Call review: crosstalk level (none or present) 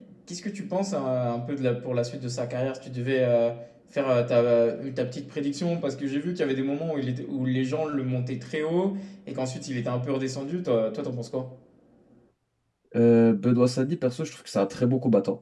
none